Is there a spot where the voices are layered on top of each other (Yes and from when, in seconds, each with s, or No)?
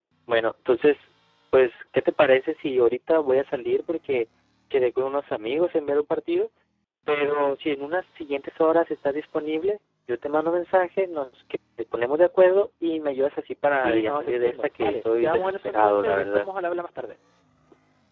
Yes, from 13.8 s